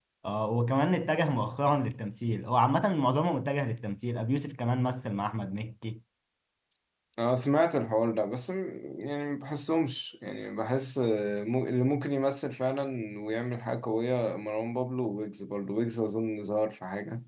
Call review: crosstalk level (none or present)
none